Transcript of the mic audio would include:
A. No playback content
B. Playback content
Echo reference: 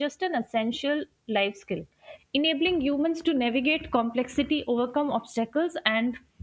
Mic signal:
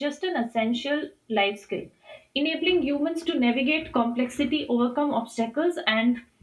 B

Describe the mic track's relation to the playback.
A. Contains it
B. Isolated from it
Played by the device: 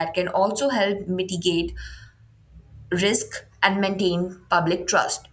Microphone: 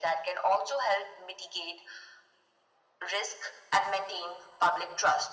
A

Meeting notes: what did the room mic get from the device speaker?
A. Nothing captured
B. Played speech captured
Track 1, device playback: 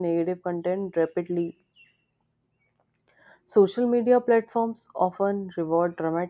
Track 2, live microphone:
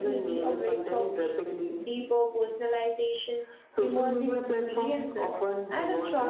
B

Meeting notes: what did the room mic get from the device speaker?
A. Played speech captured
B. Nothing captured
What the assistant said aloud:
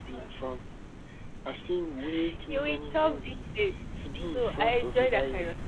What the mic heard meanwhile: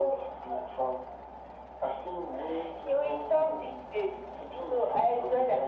A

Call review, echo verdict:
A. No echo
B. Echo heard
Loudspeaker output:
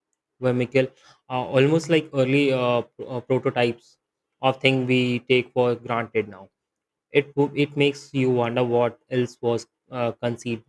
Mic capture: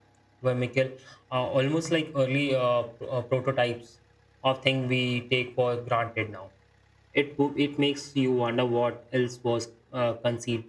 B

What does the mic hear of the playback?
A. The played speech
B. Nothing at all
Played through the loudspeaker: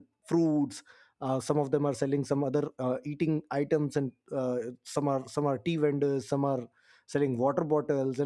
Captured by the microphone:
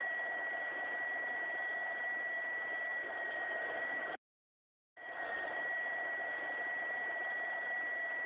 B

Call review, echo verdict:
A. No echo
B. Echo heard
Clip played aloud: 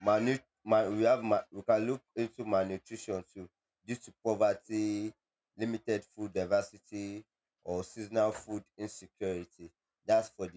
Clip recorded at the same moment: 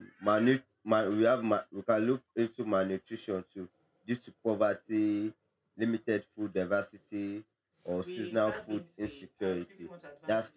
B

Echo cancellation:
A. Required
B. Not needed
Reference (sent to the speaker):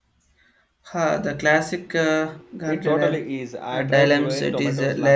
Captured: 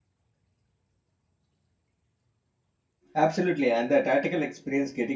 B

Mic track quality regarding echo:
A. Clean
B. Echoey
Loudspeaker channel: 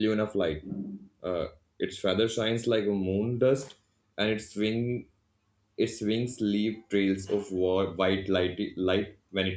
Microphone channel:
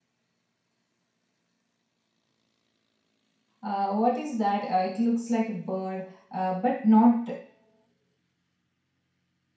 A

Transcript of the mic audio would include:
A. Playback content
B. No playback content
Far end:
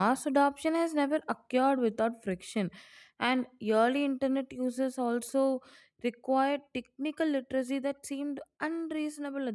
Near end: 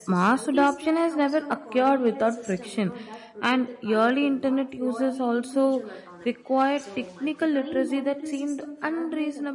A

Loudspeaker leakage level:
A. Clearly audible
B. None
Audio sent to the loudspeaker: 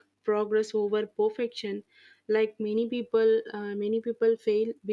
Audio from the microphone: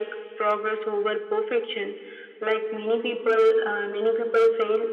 A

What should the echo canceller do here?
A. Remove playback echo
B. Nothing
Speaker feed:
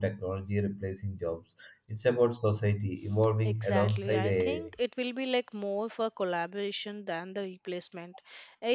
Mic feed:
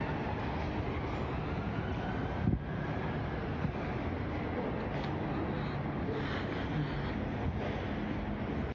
B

